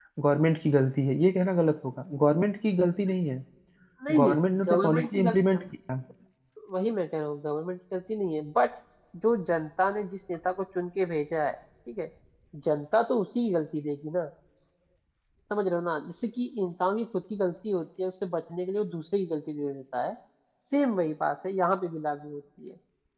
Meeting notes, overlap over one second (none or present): present